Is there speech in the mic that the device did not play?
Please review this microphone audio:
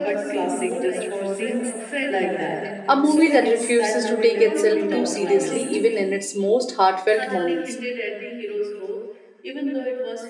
Yes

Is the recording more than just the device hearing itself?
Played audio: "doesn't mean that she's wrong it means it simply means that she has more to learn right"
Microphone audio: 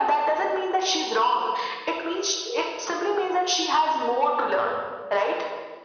No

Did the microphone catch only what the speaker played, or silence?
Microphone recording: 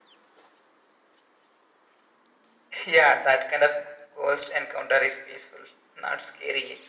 Yes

